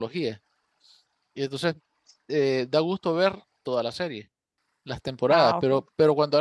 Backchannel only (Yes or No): Yes